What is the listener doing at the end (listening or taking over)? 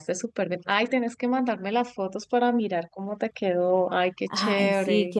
taking over